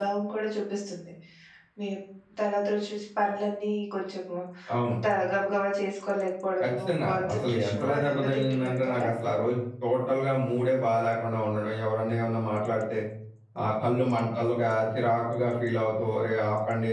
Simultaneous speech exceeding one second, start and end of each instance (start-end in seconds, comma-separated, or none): 6.6-9.1